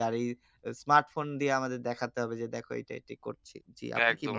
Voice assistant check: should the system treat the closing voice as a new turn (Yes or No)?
Yes